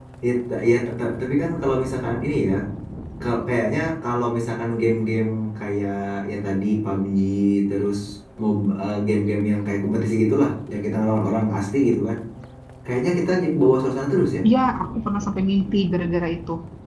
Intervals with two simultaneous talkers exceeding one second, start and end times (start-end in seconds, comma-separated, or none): none